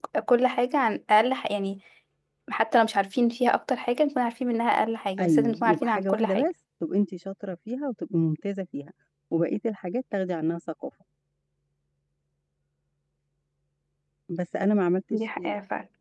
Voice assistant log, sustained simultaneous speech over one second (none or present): present